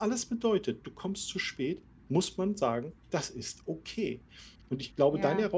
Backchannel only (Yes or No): Yes